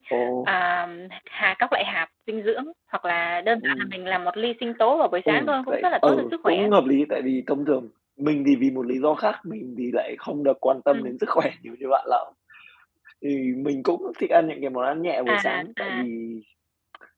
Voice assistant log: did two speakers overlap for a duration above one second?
Yes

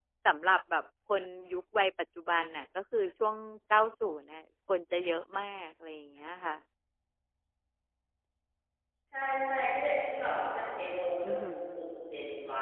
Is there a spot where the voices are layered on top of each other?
No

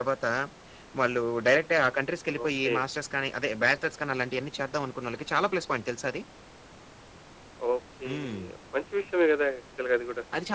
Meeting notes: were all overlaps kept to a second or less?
Yes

